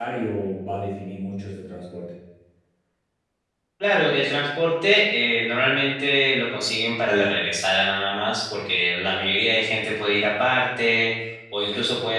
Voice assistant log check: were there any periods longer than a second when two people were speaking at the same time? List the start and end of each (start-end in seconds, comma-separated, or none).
none